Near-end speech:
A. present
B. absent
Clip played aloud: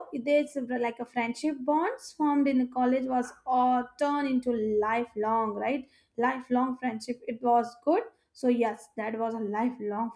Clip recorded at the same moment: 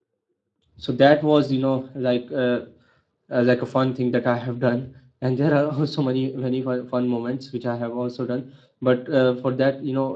A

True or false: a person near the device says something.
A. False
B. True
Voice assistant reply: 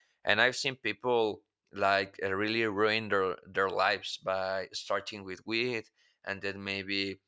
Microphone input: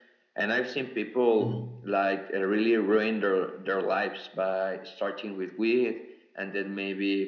B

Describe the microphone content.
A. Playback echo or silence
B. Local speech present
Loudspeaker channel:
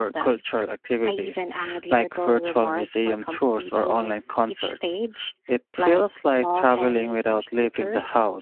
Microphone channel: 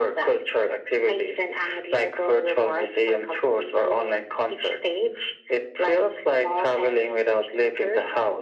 A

